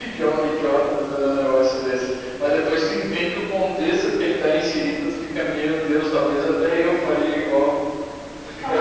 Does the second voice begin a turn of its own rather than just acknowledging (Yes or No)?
Yes